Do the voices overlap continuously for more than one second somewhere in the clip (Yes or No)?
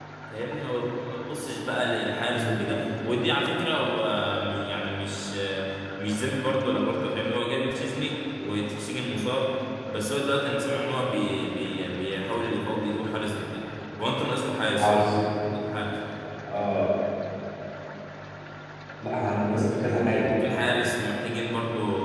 No